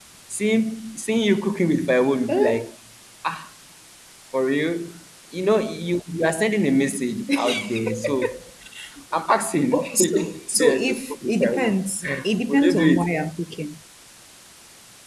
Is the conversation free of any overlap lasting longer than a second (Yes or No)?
No